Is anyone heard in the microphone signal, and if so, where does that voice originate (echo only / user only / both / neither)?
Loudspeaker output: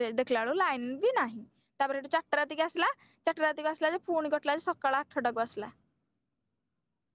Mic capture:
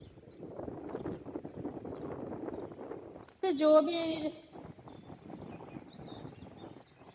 user only